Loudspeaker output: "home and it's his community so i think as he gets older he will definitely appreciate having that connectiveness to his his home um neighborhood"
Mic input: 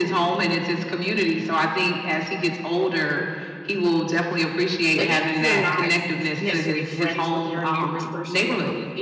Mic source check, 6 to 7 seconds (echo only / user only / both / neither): both